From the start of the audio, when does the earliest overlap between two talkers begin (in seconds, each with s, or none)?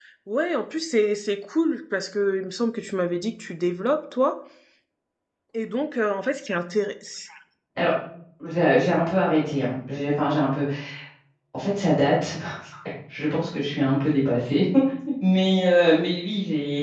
none